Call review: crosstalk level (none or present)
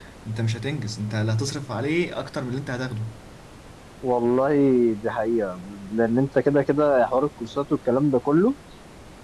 none